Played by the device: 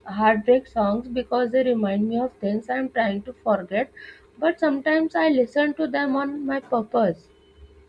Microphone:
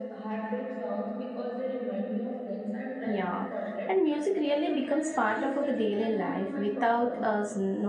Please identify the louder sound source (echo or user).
user